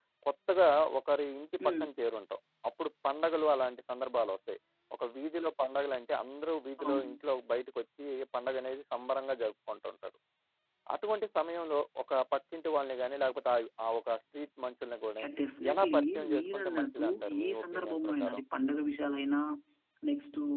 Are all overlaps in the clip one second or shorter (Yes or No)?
No